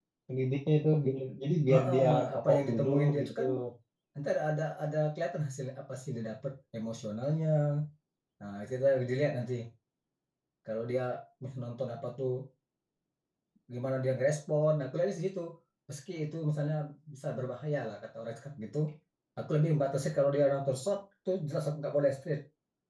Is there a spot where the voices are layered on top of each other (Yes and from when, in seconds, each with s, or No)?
Yes, from 1.7 s